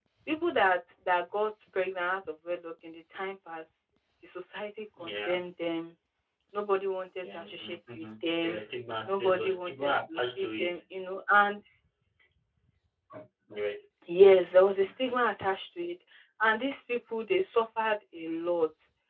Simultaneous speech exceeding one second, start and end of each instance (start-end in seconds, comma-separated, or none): 7.2-8.6, 9.1-10.8